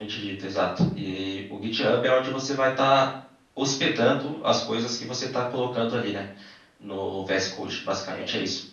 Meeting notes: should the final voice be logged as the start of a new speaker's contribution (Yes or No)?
Yes